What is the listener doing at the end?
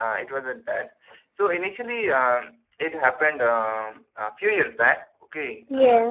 listening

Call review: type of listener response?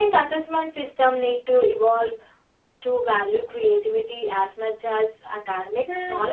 taking over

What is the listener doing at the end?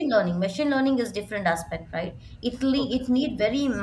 listening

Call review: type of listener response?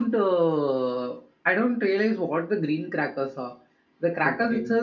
listening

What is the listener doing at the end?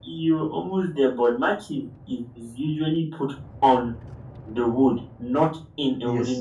taking over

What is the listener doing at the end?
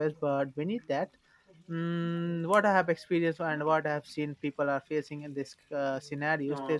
listening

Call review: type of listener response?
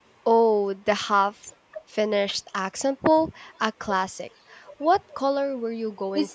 taking over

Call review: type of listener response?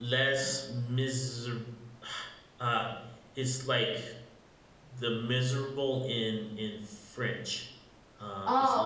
taking over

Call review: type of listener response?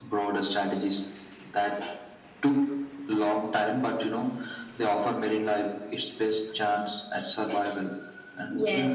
taking over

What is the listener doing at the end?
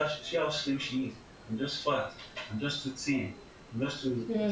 listening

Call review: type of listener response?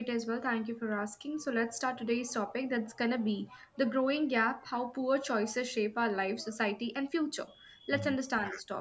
listening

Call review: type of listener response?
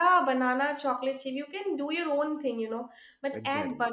listening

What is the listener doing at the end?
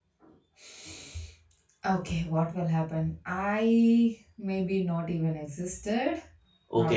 taking over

